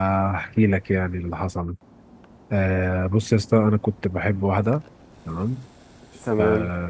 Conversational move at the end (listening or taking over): listening